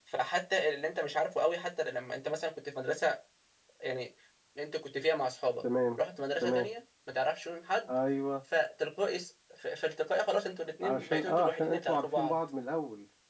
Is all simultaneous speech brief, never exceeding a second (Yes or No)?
No